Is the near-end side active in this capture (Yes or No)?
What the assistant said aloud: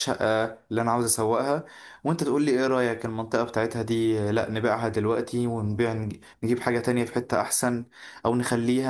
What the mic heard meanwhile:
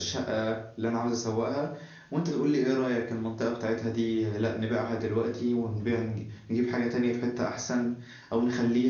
No